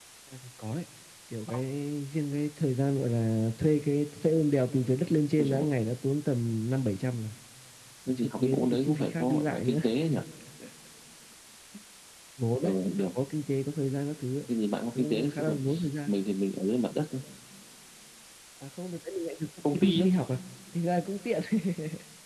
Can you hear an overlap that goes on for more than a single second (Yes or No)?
Yes